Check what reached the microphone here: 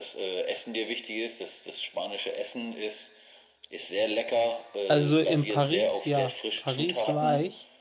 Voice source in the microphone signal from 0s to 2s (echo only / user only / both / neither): echo only